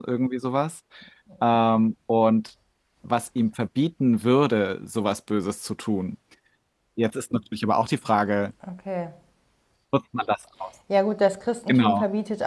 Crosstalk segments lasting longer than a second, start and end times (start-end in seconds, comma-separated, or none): none